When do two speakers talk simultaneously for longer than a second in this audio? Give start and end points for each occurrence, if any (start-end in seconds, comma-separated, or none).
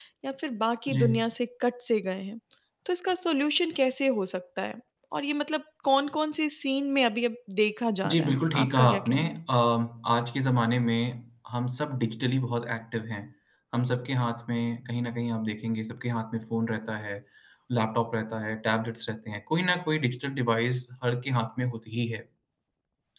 8.1-9.4